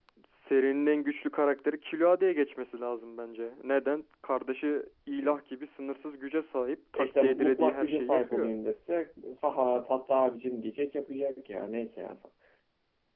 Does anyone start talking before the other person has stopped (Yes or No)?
Yes